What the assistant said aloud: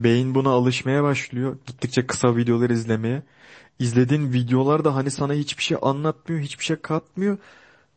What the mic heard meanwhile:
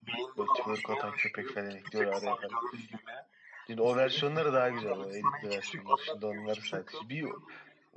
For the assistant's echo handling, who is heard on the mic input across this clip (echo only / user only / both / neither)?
both